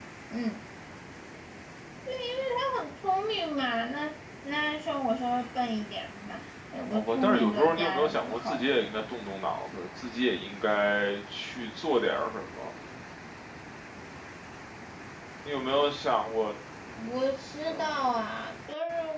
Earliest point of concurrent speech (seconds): 6.9 s

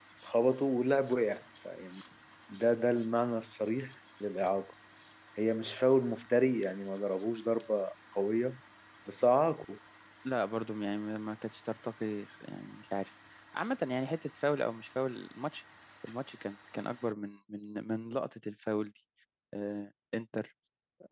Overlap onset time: none

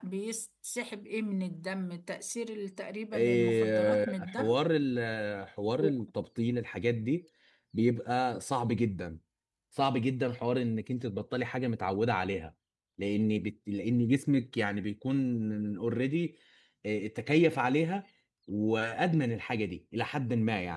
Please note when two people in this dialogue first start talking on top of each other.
3.1 s

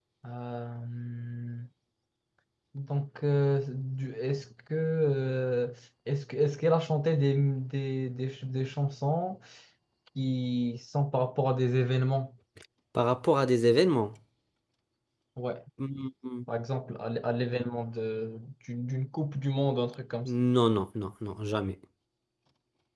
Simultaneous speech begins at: none

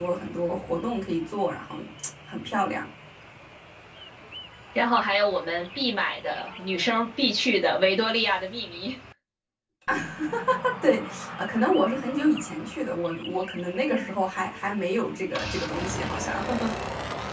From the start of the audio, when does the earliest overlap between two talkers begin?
none

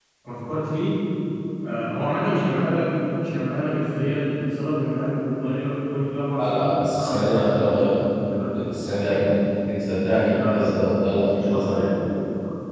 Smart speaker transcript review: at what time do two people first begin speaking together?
6.4 s

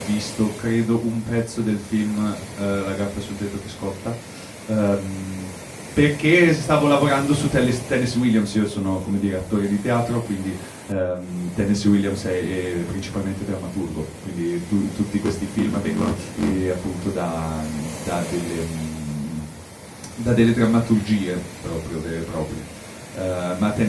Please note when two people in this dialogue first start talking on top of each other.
none

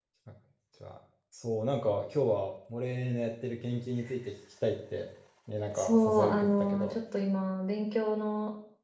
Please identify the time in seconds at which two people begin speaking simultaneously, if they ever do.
5.8 s

